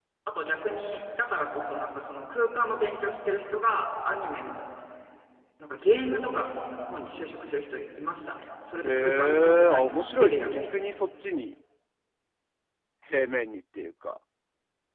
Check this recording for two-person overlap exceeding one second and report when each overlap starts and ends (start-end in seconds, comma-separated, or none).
8.8-10.6